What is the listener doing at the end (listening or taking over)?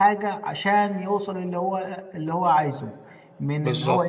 listening